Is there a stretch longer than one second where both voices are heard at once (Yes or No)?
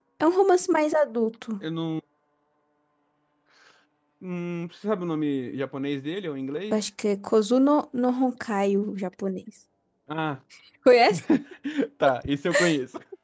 No